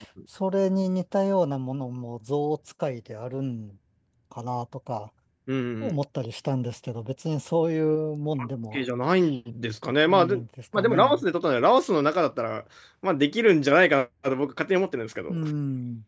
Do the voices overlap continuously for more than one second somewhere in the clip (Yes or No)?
No